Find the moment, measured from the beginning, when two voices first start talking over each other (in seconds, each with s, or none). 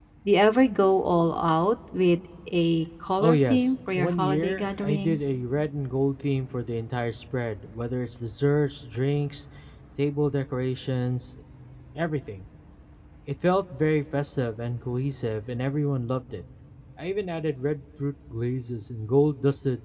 3.2 s